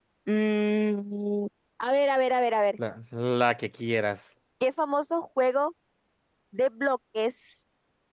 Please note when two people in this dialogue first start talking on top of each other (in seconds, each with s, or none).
none